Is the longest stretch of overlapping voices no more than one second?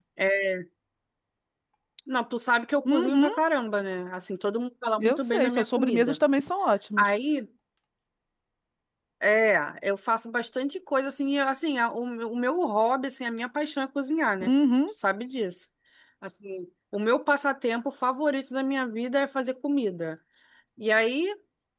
No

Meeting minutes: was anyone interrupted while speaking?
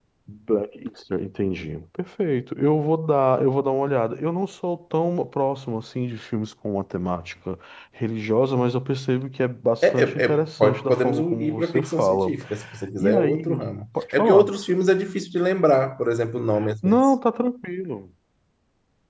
Yes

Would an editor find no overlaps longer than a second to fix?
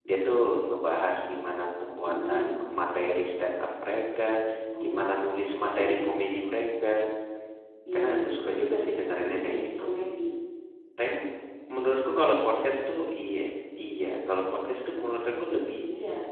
No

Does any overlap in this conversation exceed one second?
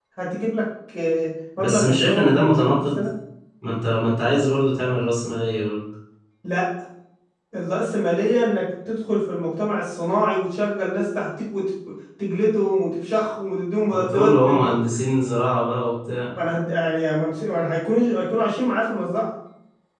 Yes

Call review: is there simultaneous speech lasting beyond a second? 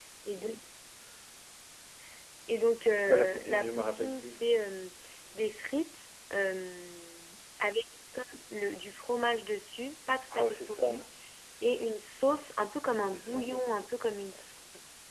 Yes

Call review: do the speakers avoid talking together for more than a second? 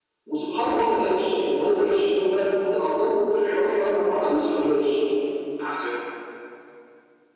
No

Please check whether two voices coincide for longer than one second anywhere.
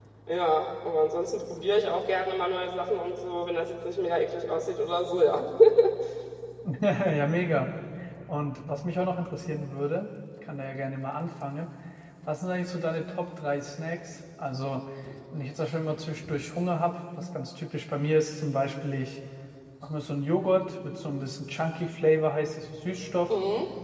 No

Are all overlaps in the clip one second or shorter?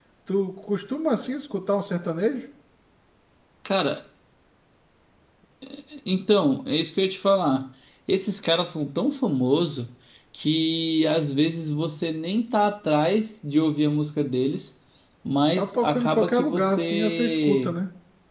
No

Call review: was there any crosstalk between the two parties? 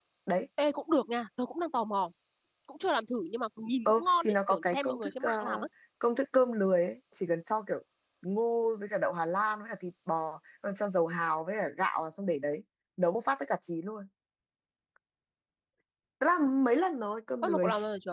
Yes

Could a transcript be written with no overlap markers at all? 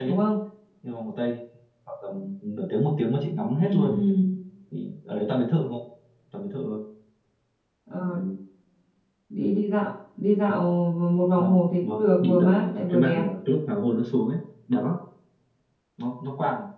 No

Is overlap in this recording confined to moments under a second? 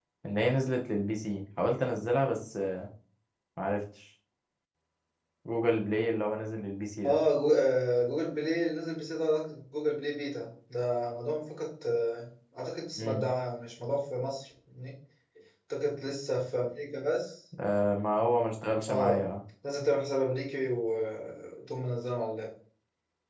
Yes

